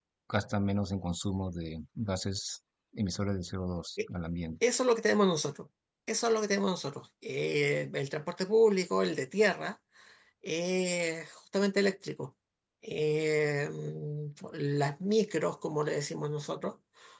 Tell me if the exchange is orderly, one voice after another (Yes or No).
Yes